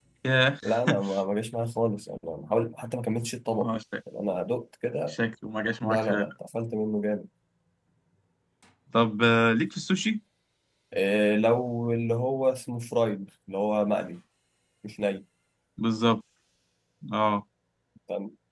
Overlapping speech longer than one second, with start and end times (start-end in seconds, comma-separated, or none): none